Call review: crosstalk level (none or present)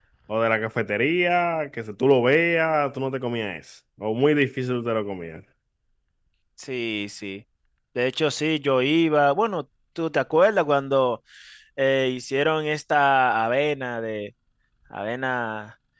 none